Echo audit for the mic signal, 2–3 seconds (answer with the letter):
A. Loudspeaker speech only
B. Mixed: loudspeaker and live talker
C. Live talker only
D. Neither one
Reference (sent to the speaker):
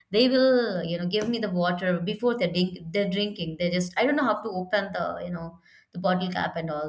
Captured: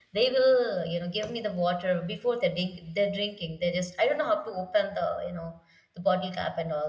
A